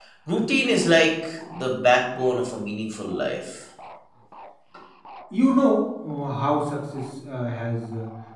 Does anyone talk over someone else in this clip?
No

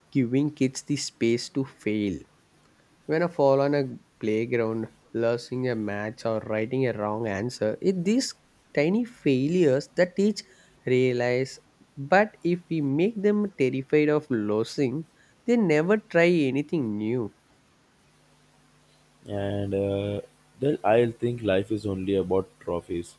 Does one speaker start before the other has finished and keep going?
No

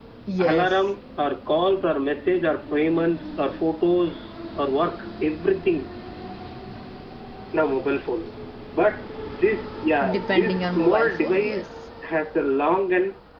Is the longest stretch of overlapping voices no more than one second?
No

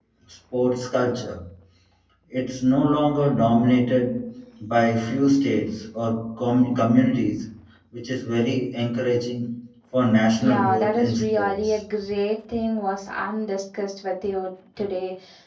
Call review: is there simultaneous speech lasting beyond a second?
Yes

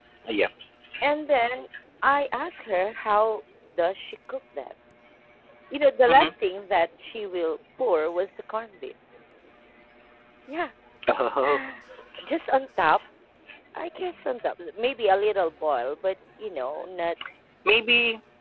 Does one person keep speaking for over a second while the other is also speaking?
No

